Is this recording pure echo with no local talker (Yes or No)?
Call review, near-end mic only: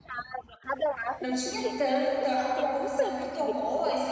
No